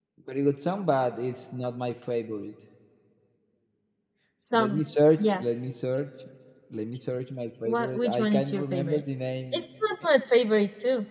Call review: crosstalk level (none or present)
present